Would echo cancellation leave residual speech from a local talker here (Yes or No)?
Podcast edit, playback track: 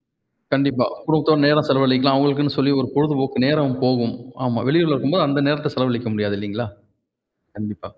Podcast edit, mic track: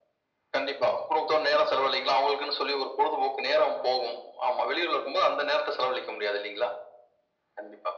No